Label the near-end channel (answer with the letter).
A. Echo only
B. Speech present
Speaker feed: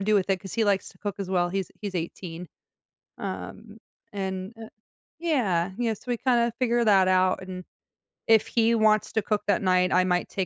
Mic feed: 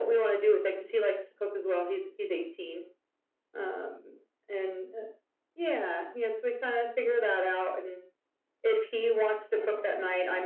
B